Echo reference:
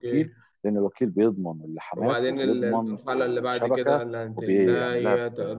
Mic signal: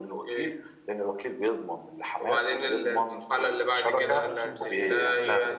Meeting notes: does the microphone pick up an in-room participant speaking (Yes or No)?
Yes